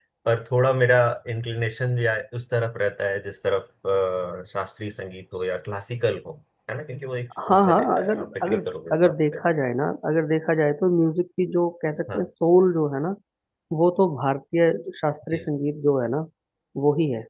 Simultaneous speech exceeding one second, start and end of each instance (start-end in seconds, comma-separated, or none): 7.5-9.4